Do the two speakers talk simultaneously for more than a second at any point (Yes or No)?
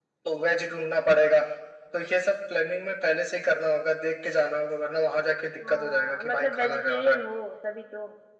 Yes